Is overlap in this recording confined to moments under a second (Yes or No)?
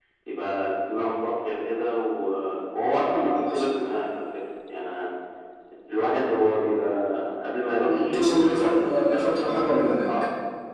No